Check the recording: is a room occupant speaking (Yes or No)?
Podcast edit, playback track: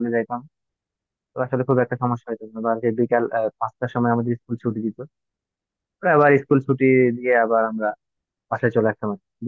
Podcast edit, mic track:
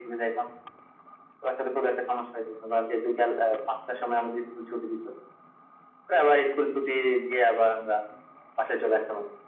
No